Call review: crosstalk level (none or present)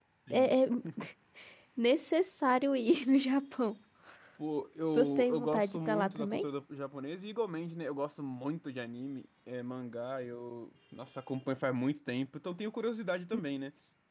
present